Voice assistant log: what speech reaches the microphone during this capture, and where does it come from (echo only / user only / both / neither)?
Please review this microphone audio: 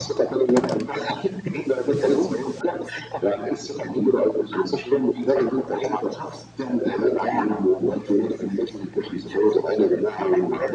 echo only